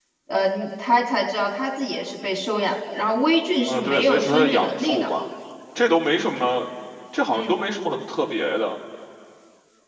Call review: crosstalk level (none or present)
present